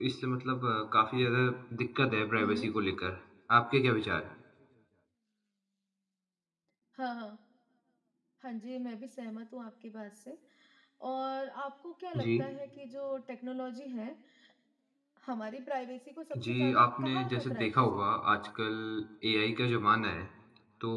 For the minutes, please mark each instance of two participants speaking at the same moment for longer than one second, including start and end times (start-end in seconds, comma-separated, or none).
16.4-17.7